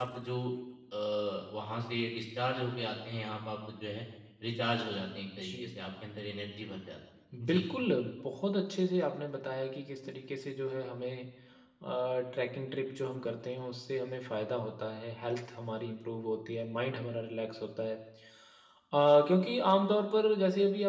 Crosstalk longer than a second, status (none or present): none